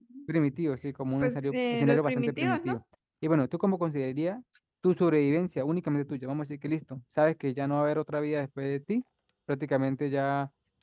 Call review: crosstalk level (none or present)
present